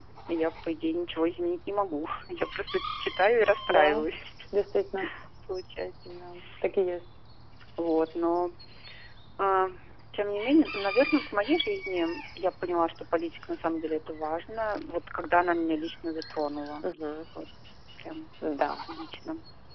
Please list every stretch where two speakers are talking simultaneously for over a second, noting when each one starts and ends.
none

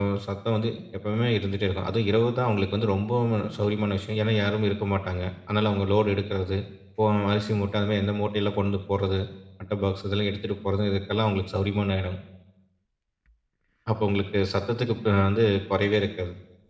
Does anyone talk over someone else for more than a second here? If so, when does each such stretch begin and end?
none

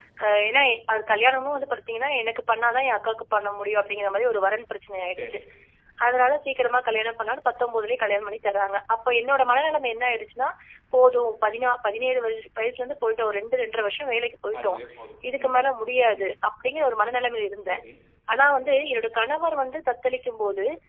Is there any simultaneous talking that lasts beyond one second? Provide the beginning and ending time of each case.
none

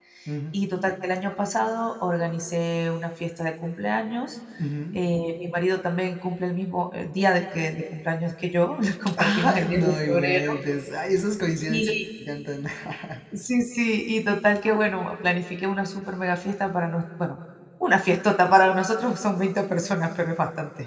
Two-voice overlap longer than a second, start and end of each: 9.2-10.6

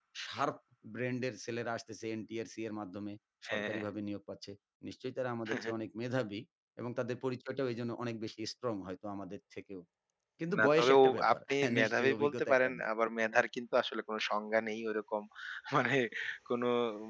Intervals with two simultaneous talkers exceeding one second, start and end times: 10.6-12.8

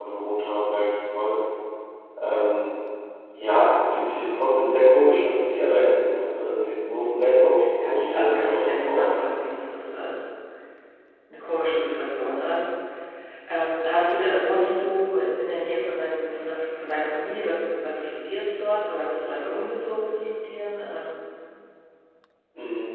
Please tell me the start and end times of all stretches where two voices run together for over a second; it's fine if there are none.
7.8-9.1

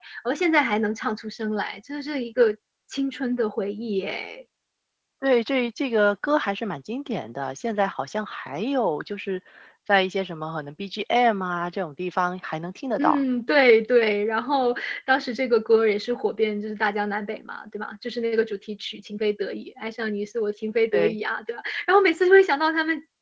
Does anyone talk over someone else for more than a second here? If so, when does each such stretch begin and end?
none

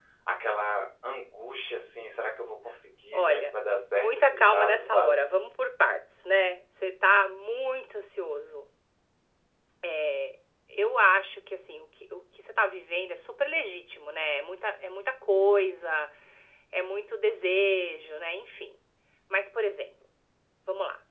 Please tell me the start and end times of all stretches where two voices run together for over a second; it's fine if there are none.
3.9-5.2

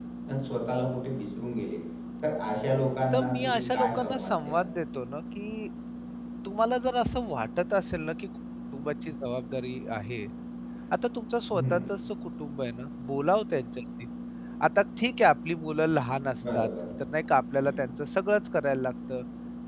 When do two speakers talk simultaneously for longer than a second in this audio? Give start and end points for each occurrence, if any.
3.1-4.7

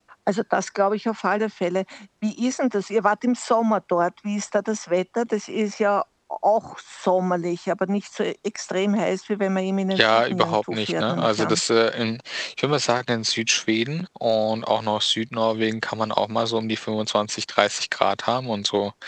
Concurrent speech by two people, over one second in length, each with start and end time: 9.9-11.6

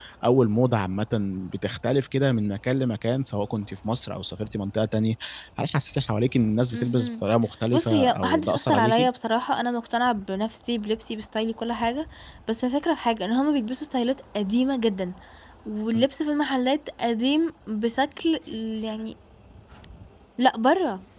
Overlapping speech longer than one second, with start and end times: 7.7-9.1

